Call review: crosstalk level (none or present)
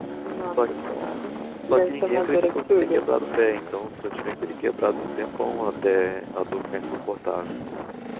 present